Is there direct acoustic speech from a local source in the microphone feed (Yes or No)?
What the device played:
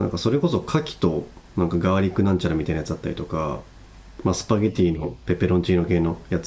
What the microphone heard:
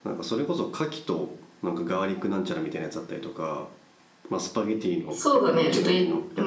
Yes